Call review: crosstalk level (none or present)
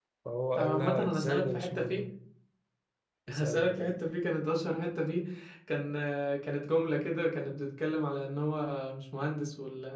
present